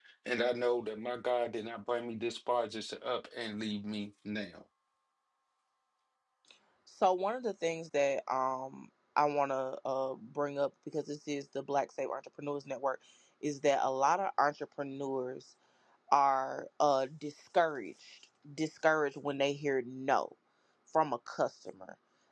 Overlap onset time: none

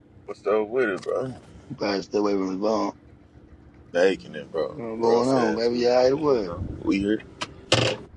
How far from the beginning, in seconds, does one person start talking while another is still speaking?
5.0 s

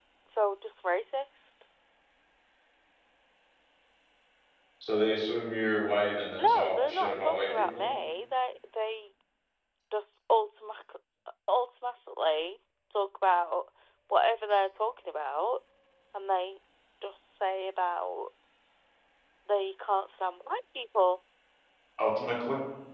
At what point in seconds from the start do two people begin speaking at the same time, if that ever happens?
6.4 s

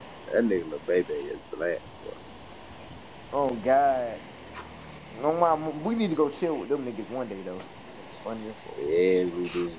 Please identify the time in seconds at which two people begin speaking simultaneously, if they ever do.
none

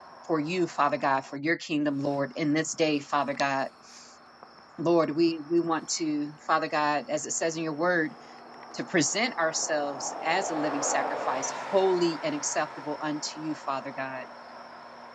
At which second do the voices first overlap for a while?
none

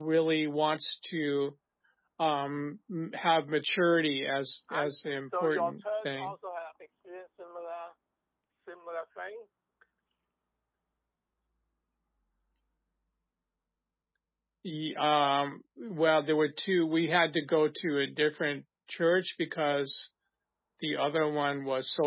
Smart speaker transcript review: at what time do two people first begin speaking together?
4.7 s

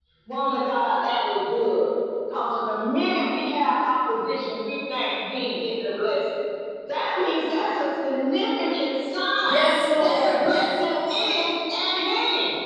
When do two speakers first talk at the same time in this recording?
9.4 s

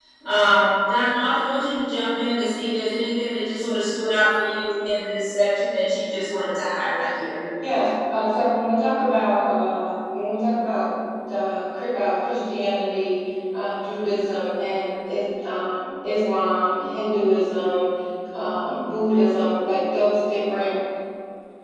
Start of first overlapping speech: none

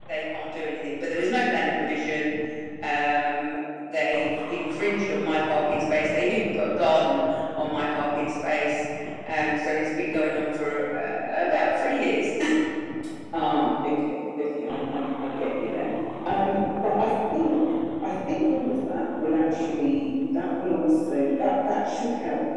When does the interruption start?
none

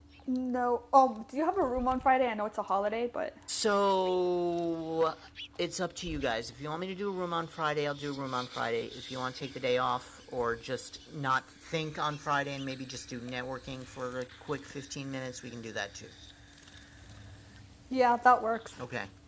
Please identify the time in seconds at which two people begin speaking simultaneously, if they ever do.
none

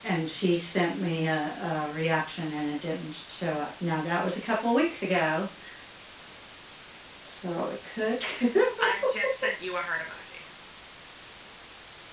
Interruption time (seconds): none

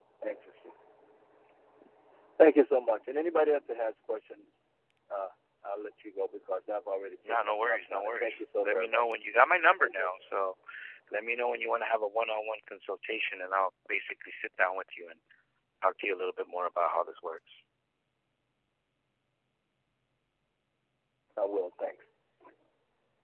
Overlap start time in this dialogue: 7.3 s

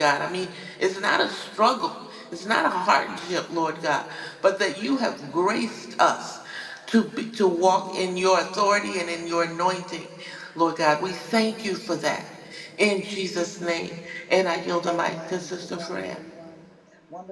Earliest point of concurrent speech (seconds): 14.9 s

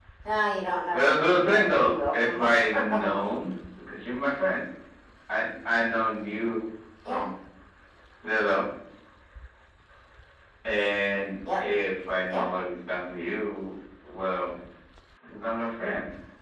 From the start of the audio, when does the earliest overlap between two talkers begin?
0.9 s

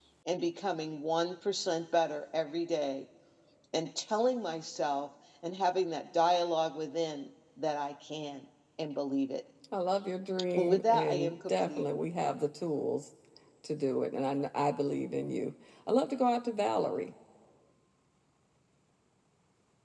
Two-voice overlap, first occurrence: 10.6 s

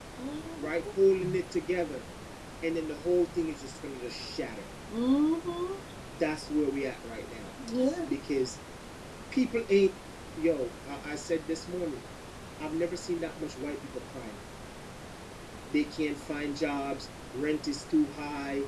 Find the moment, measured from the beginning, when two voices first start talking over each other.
none

